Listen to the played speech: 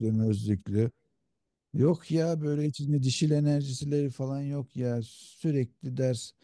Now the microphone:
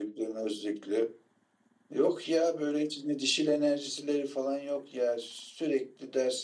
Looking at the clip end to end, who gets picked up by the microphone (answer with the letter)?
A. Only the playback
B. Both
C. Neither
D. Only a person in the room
A